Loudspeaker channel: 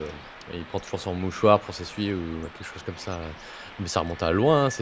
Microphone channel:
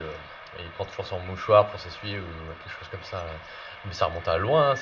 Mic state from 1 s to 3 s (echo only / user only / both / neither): echo only